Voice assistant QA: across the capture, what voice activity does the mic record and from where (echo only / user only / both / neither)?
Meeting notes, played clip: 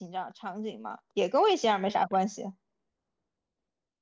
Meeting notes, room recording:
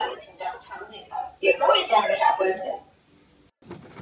echo only